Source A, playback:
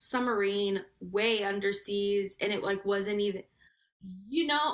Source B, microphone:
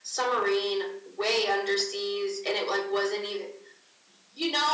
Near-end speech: none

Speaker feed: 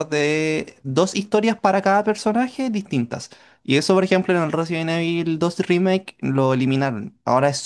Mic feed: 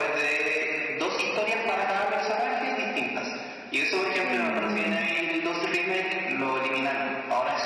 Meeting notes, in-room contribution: present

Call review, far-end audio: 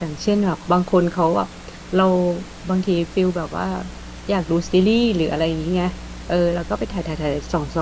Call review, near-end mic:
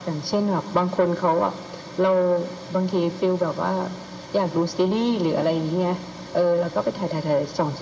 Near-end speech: none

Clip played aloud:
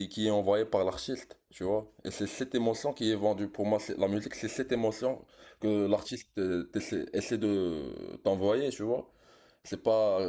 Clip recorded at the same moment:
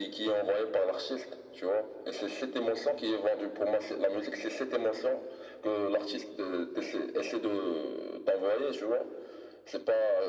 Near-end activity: none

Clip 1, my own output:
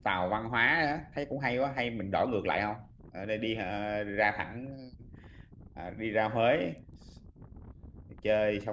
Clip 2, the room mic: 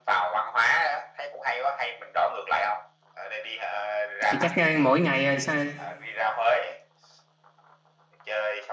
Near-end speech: present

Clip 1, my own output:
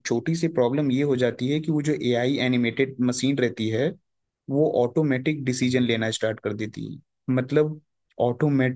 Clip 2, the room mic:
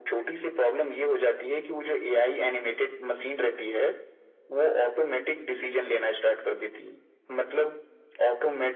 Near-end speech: none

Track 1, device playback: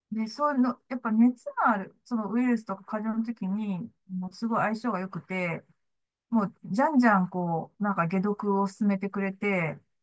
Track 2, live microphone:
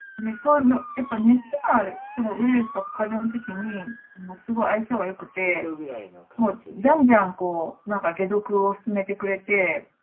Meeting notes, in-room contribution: present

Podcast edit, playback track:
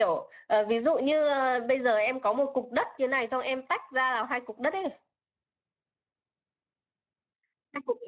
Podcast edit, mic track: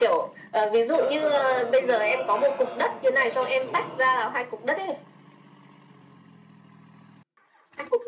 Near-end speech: present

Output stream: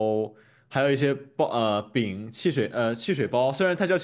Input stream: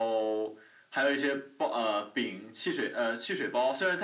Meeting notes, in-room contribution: none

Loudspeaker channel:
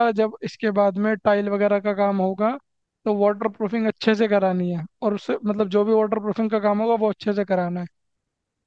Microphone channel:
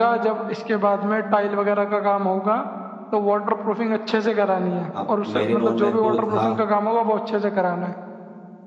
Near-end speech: present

